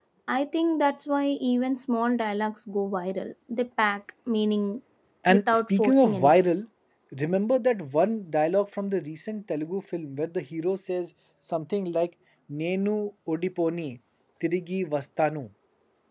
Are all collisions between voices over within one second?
No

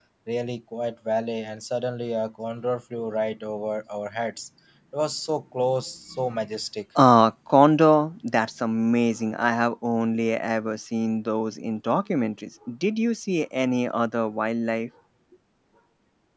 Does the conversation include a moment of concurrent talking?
No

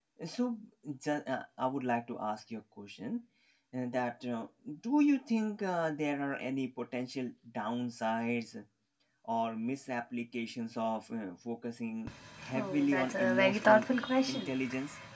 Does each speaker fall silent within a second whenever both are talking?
No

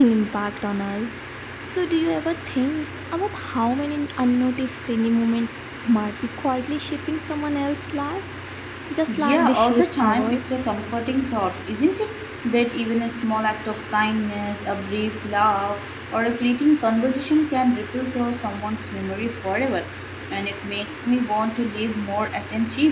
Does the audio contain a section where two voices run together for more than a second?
Yes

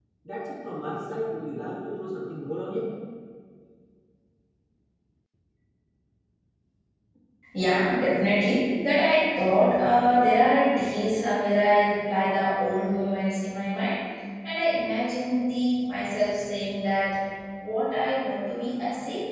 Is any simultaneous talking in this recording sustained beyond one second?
No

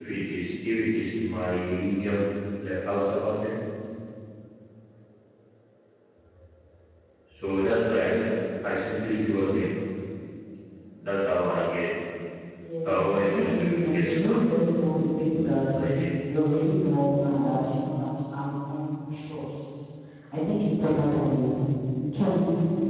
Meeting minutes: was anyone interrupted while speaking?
Yes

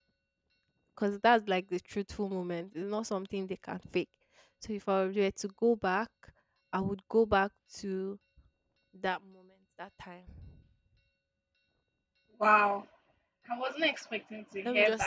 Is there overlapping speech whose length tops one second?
No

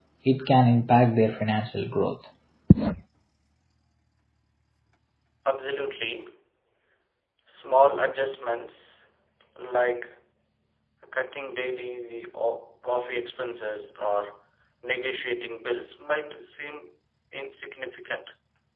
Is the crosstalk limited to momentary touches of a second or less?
Yes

